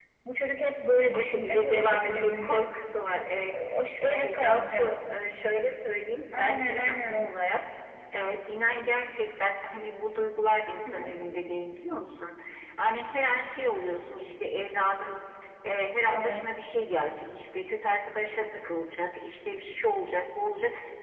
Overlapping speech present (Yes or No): Yes